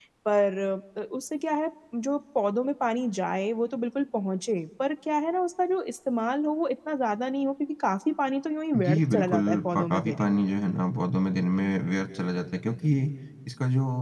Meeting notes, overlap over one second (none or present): present